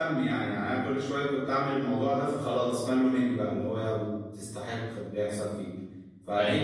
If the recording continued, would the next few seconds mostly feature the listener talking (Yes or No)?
No